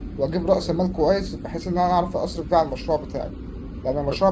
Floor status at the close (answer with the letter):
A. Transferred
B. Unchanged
B